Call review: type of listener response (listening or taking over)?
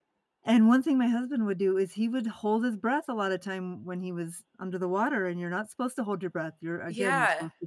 taking over